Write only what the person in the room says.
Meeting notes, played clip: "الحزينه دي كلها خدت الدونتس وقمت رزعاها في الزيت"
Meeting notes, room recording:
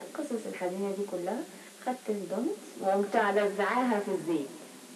none

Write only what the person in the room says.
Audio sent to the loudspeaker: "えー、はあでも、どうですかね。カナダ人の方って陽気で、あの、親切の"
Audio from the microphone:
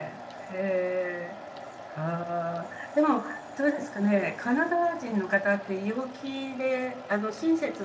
none

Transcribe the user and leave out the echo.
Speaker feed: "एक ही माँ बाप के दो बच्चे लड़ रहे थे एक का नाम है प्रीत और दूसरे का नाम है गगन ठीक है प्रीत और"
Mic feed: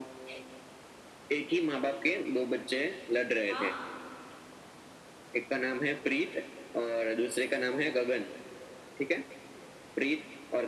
हाँ

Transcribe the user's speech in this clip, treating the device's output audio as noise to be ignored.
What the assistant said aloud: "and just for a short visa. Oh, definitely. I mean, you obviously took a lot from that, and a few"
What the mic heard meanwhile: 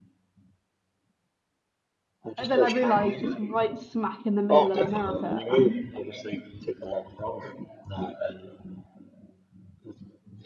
And then I realized it's right smack in the middle of America and

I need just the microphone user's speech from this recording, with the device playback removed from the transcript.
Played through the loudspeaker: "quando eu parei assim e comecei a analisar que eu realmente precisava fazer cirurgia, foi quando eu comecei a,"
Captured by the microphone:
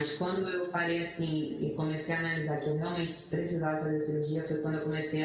none

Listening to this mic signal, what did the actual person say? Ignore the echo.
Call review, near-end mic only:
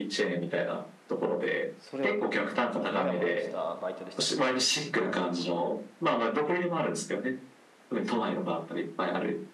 それは結構なんか、モヤモヤしたバイトでしたね。なんていうのかな。

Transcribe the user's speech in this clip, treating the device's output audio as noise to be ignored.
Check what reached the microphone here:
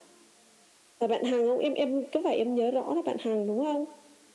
none

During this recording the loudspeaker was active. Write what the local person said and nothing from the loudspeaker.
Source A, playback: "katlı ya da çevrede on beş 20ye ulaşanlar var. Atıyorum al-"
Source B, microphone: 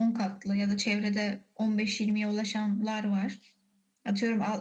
none

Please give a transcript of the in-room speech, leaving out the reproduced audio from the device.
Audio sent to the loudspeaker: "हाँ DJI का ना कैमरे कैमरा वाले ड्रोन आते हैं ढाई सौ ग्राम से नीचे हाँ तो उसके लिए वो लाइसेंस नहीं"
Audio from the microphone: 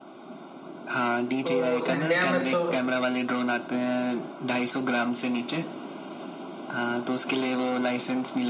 तो वो इंडिया में तो

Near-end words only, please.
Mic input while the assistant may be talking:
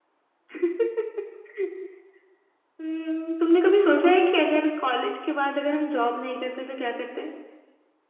none

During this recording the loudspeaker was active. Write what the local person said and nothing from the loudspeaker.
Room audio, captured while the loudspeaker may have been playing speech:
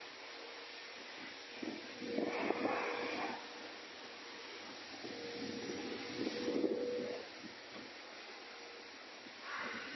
none

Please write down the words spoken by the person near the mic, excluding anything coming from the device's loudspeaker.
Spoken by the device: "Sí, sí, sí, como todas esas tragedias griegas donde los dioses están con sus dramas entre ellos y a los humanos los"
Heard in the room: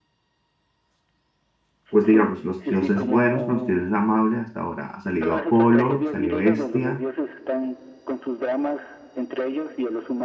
pues digamos, los dioses buenos, los dioses amables. Hasta ahora ha salido Apolo, salió Hestia,

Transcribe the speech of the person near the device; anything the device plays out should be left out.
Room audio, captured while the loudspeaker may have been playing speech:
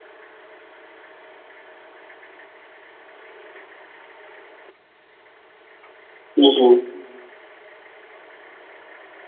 ujú.

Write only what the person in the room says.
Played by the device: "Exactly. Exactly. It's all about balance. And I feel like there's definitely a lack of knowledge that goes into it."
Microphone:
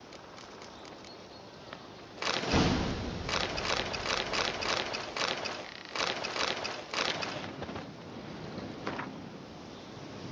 none

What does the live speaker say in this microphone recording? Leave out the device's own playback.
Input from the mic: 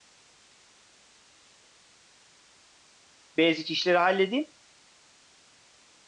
basic işleri halledeyim

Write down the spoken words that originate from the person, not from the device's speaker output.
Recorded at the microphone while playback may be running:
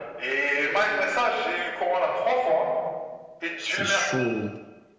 C'est chaud.

